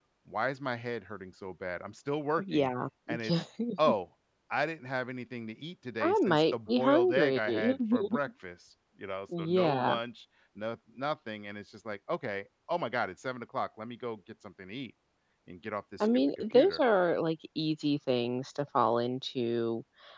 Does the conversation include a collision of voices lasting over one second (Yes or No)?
Yes